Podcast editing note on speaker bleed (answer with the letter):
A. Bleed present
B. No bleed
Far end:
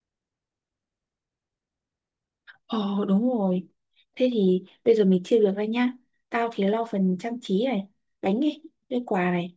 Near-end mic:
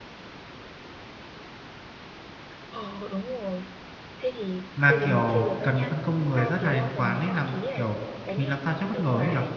A